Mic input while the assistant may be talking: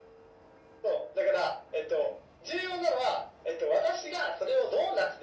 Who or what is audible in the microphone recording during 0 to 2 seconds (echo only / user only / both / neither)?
echo only